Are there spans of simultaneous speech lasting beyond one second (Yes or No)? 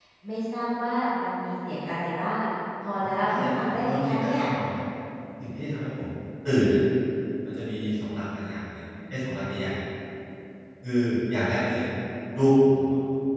Yes